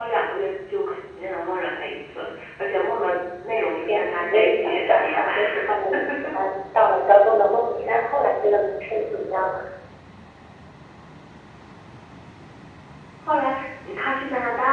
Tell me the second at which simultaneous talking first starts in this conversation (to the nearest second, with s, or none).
4 s